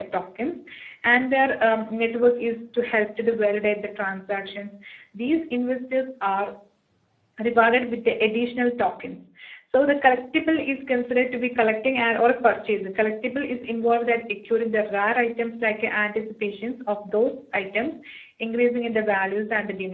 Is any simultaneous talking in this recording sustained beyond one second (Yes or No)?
No